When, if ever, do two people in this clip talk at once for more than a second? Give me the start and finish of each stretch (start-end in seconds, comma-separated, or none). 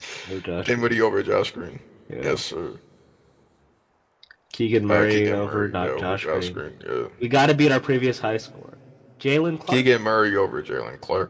4.9-6.6